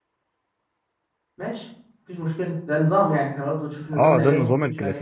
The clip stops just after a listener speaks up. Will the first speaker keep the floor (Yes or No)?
No